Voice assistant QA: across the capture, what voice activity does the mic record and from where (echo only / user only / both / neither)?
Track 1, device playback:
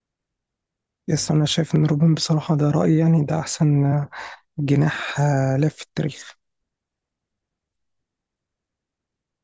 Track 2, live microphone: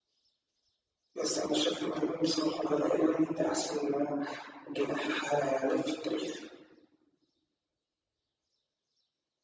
echo only